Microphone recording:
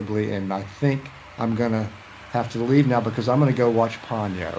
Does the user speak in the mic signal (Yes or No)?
Yes